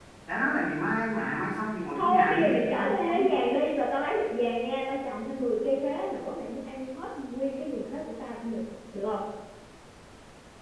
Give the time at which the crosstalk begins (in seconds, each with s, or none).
1.9 s